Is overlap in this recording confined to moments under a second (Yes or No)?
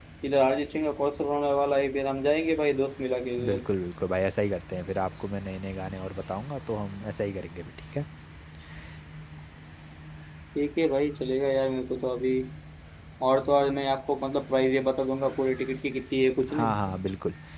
Yes